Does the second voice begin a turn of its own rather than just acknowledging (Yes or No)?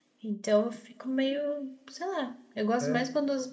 No